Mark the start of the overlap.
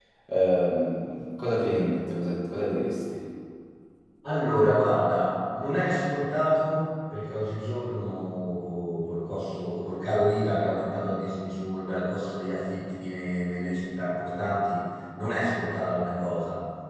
none

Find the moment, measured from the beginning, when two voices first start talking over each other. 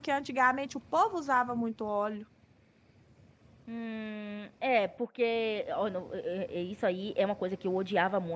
none

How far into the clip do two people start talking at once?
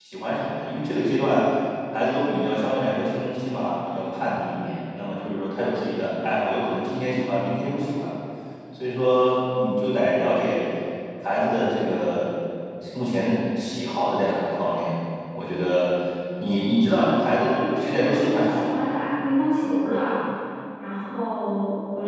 16.9 s

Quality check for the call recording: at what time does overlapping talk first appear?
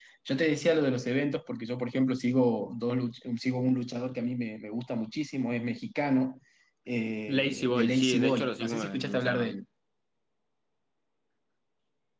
7.3 s

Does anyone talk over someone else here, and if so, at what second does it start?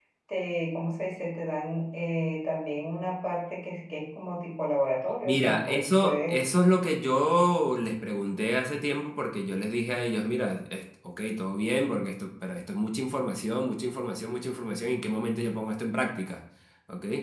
5.2 s

